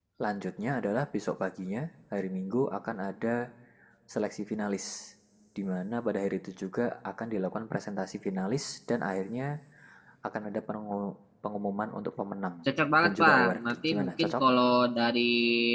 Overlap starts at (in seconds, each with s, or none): 13.0 s